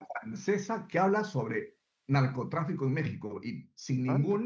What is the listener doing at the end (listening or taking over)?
listening